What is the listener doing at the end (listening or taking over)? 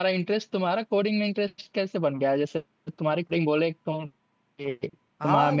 listening